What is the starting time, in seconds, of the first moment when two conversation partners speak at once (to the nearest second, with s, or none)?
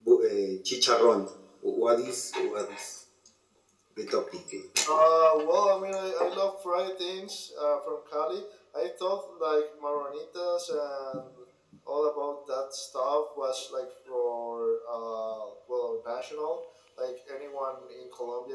none